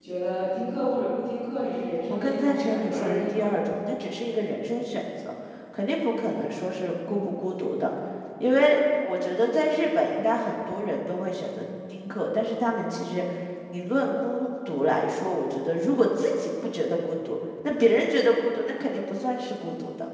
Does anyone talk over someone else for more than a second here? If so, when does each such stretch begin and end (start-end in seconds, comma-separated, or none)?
2.1-3.4